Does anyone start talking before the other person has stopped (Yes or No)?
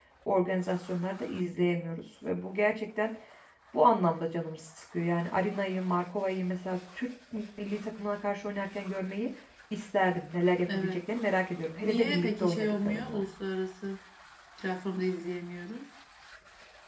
Yes